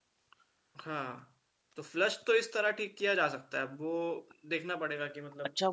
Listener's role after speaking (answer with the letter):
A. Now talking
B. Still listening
A